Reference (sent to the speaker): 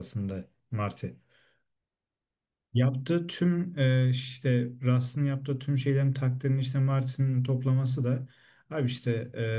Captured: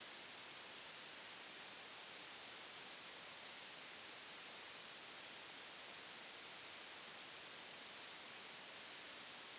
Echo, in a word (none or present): none